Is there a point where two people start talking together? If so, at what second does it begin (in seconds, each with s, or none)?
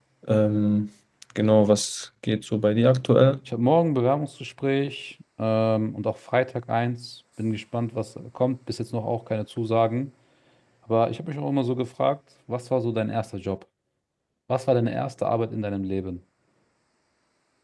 none